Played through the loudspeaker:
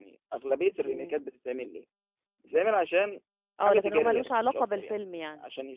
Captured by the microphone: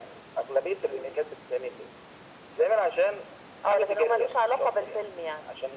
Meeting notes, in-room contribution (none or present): none